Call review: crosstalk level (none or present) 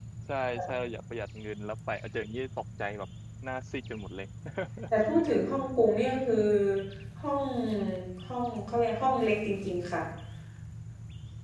none